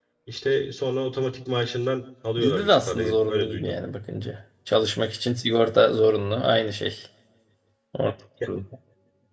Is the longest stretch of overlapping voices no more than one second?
No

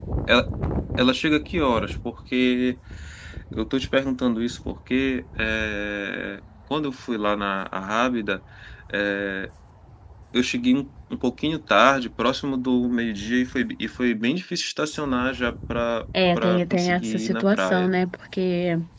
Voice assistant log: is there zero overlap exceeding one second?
No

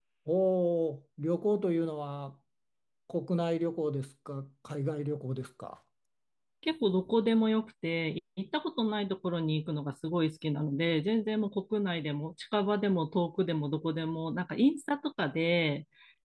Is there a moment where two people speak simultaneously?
No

